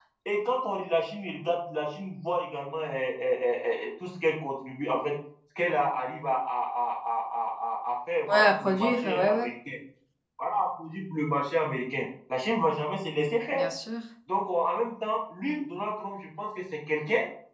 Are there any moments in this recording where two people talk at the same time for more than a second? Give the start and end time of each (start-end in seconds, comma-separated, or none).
8.3-9.5